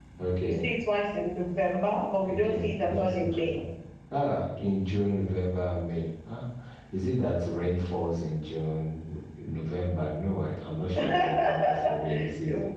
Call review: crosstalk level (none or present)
present